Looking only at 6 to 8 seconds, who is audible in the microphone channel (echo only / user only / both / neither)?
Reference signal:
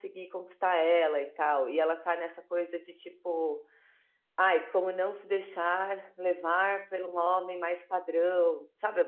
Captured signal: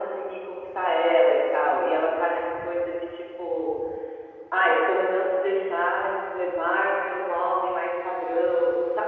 echo only